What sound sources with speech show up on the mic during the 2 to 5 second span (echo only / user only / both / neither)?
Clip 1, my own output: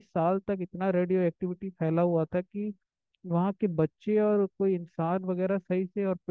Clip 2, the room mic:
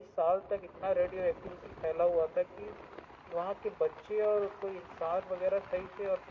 echo only